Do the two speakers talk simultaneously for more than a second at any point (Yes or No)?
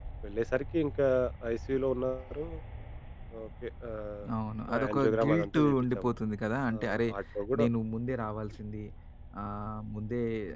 Yes